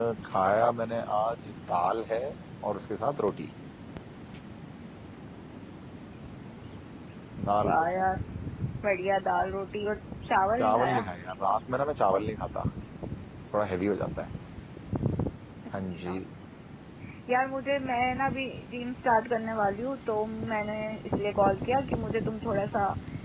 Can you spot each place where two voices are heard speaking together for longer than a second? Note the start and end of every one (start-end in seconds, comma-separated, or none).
none